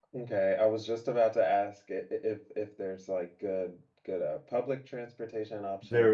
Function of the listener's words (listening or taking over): taking over